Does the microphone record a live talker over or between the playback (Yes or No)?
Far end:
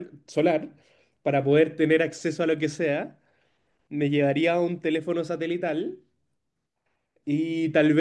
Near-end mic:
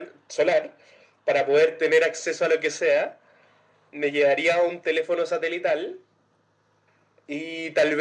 No